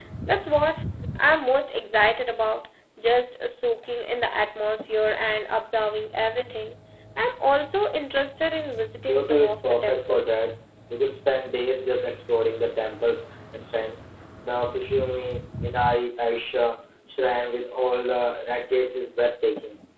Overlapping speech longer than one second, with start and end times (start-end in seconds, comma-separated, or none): 9.1-10.5